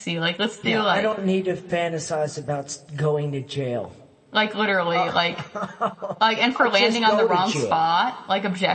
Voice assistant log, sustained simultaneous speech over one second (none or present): present